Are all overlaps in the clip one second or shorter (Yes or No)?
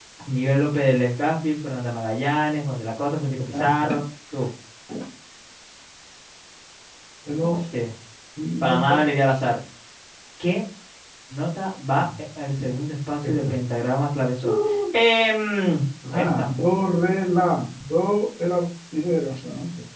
Yes